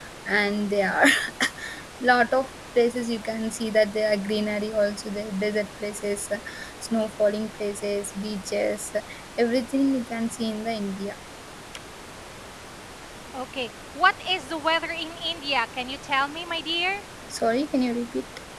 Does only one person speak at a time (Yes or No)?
Yes